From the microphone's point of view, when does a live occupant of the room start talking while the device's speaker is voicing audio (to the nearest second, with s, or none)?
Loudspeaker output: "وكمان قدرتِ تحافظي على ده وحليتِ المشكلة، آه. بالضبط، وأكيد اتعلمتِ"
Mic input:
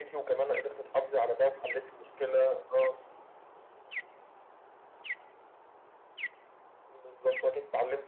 none